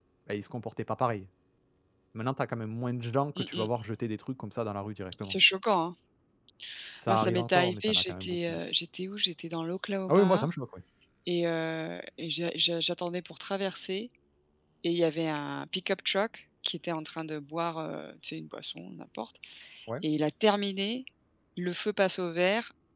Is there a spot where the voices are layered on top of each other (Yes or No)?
Yes